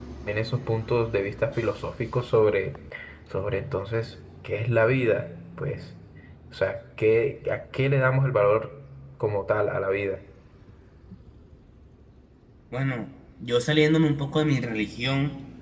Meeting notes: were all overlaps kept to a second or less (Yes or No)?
Yes